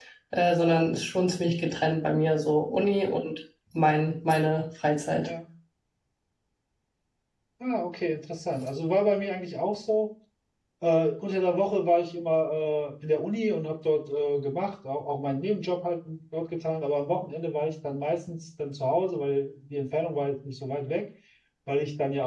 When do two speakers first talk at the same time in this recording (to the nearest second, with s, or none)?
none